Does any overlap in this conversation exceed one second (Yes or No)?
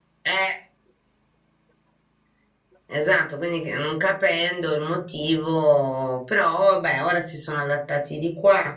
No